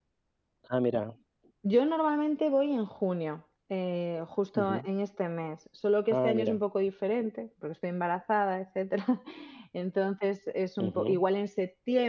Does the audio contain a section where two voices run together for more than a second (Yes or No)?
No